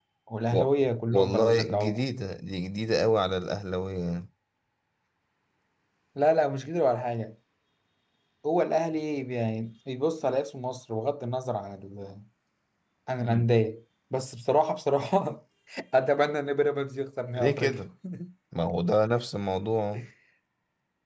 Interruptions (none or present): present